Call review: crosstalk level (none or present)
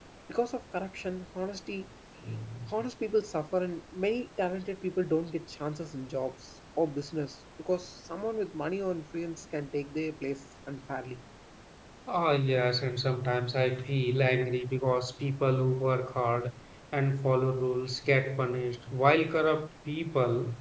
none